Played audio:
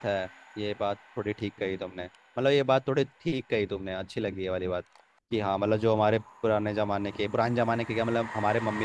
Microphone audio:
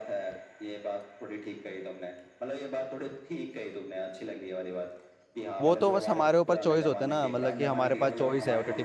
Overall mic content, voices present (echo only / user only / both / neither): both